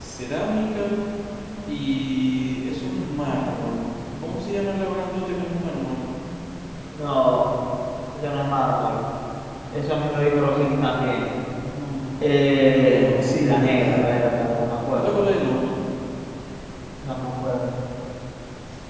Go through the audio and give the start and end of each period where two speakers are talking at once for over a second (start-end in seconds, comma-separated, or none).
12.4-14.2